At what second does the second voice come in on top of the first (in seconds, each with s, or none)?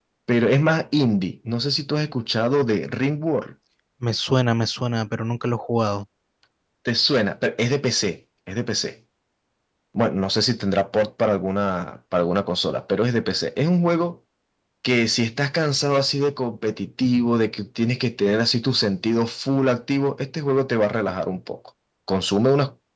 none